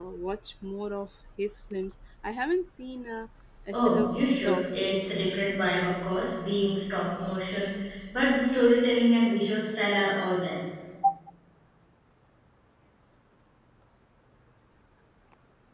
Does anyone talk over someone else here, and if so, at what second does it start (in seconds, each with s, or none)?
3.7 s